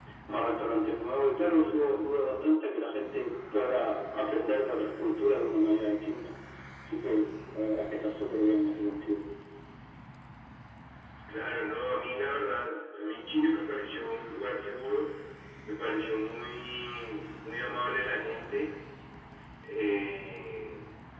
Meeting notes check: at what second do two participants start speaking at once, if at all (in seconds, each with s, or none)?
none